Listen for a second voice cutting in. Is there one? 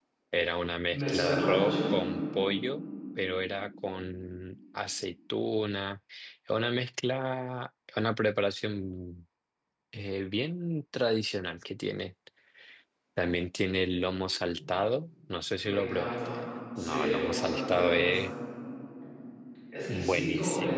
Yes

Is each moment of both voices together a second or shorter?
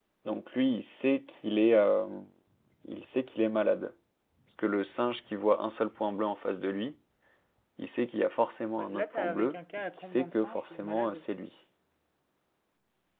No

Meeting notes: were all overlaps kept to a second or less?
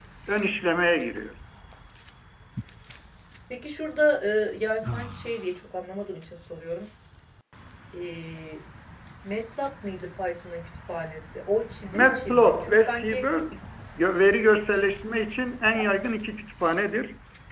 No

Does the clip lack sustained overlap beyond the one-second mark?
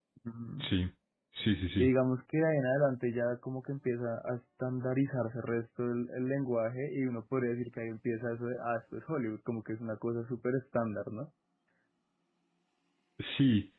Yes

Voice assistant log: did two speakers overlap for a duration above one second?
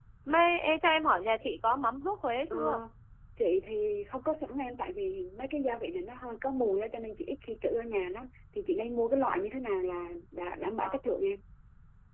No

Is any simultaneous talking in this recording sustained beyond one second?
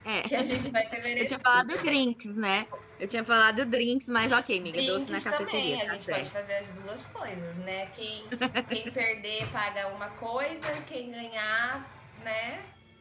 Yes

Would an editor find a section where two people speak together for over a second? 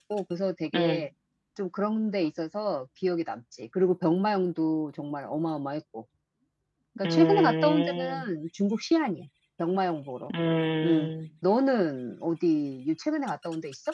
Yes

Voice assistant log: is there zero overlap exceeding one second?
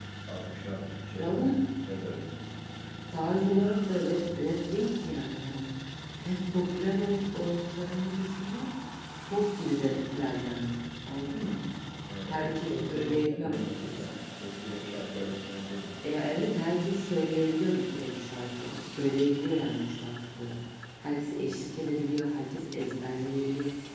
No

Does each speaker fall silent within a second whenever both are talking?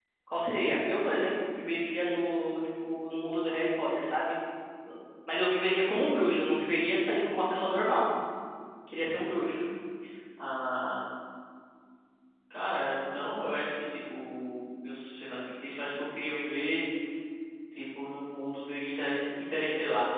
Yes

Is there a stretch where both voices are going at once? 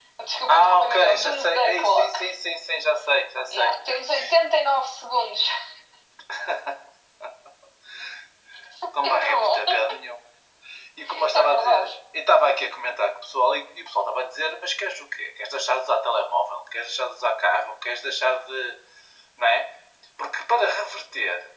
Yes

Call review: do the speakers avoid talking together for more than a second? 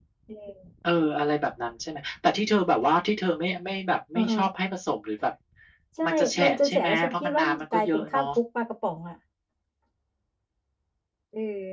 No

